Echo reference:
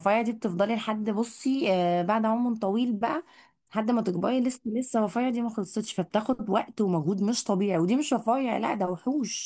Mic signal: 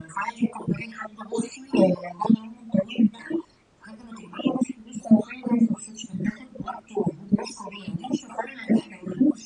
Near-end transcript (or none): none